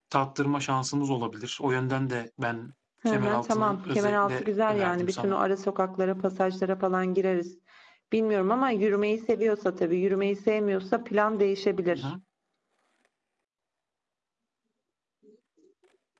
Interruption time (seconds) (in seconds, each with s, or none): 3.1 s